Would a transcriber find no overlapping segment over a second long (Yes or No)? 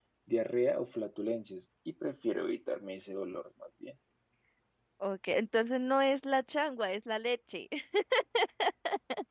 Yes